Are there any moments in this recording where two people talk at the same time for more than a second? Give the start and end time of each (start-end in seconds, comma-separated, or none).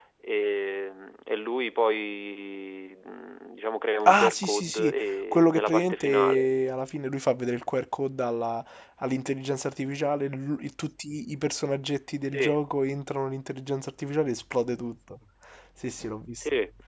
4.0-6.5